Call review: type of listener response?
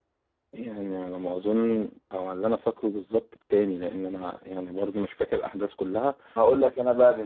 taking over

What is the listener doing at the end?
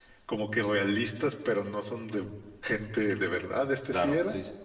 taking over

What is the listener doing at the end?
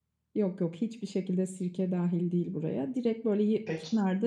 listening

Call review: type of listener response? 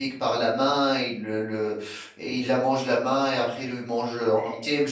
listening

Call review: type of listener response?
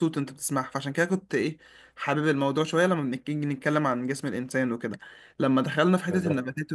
listening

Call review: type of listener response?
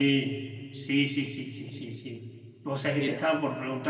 listening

